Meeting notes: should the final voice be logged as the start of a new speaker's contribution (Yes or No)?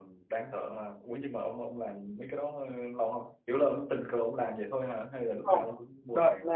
Yes